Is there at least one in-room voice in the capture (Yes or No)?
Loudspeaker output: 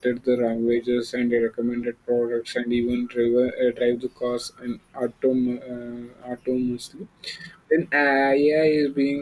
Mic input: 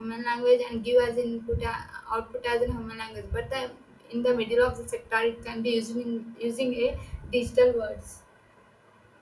Yes